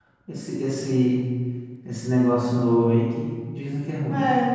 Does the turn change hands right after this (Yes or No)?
Yes